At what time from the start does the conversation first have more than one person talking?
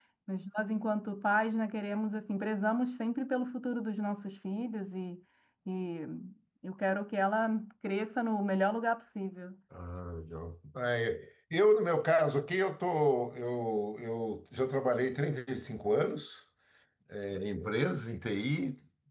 none

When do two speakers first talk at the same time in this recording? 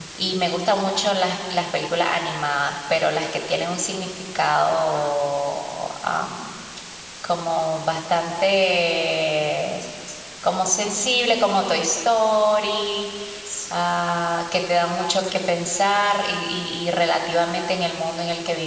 none

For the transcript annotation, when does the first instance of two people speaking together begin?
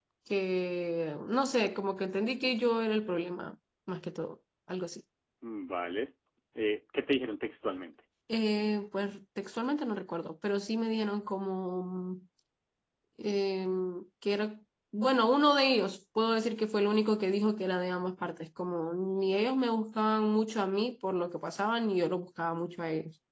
none

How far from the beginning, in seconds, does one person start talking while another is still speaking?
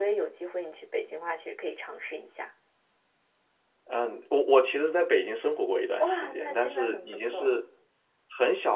6.0 s

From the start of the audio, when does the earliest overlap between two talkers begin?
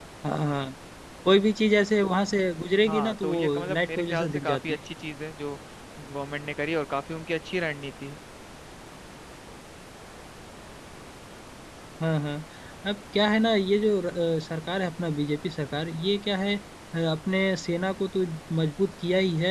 2.8 s

